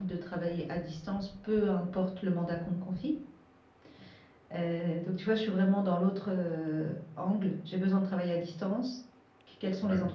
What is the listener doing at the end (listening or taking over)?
listening